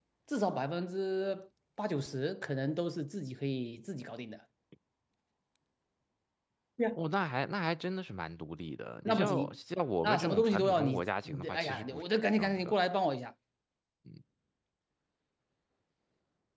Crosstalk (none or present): present